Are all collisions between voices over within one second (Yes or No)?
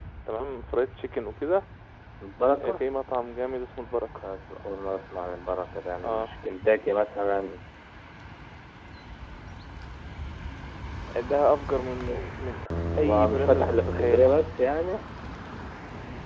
No